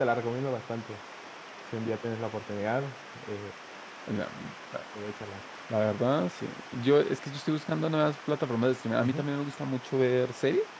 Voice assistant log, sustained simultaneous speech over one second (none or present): none